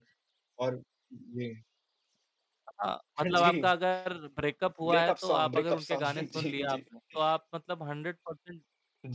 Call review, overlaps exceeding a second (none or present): present